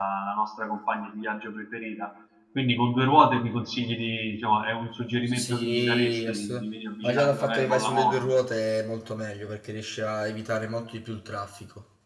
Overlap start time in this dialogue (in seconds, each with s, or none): 5.3 s